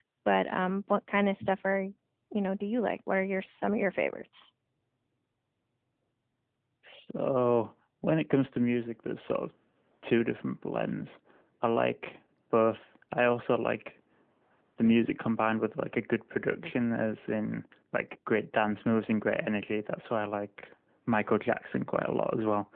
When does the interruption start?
none

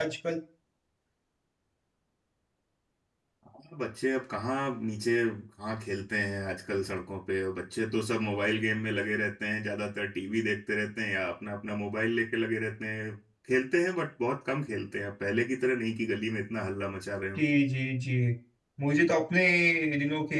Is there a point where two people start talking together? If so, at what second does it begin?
none

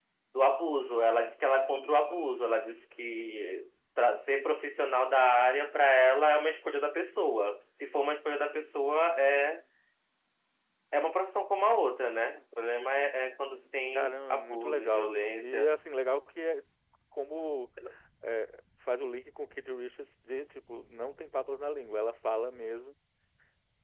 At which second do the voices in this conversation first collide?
14 s

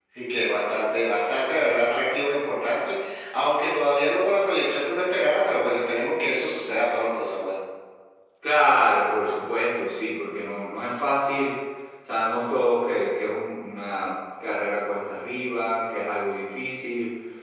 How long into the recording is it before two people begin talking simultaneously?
none

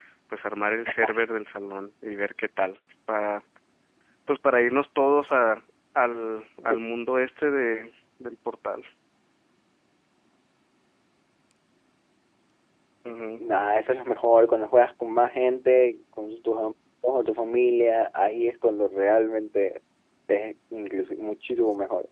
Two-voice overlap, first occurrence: none

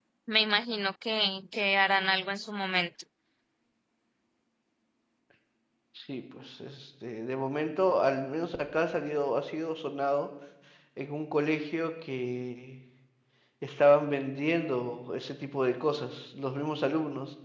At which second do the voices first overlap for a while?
none

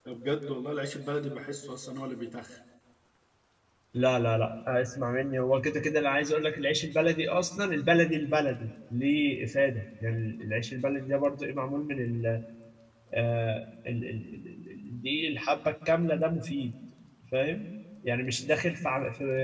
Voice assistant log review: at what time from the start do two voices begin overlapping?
none

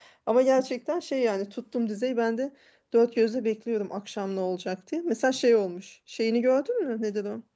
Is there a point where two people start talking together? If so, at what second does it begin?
none

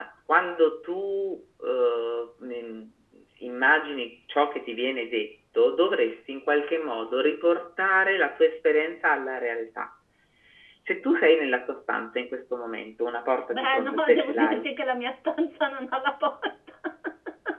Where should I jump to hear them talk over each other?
14 s

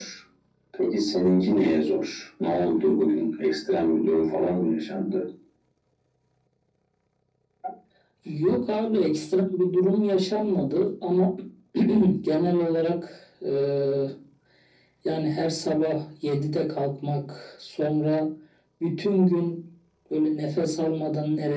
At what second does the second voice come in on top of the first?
none

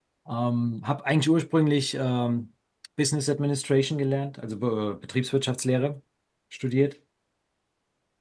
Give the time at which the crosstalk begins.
none

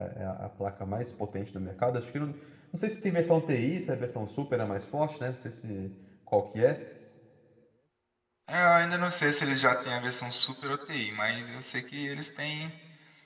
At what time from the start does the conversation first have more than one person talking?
none

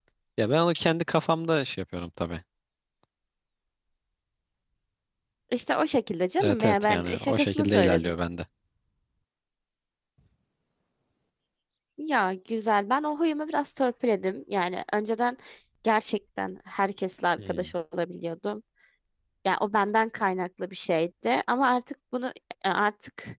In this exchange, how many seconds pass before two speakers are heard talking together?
6 s

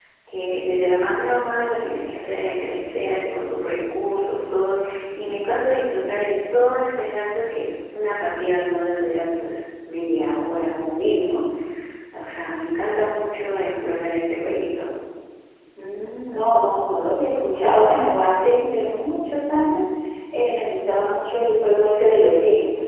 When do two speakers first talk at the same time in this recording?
none

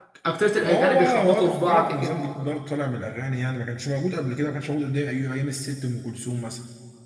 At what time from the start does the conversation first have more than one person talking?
1 s

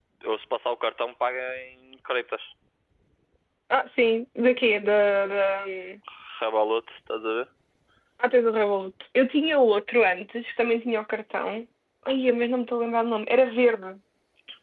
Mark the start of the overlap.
none

